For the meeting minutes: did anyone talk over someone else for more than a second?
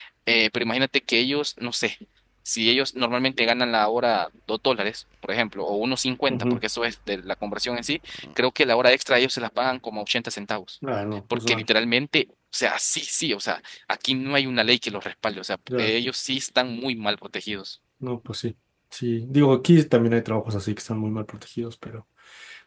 No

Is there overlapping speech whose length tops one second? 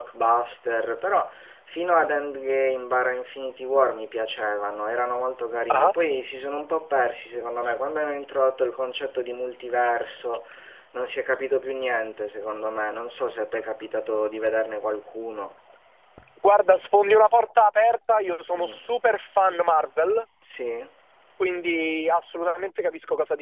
No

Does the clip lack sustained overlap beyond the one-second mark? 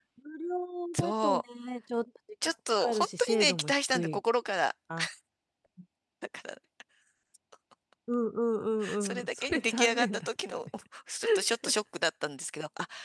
No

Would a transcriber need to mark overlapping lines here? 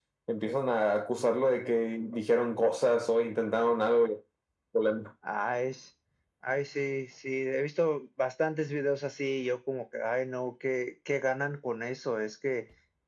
No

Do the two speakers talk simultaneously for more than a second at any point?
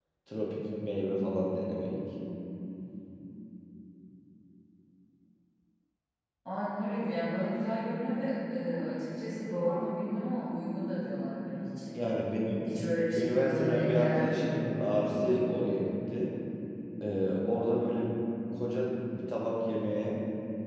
Yes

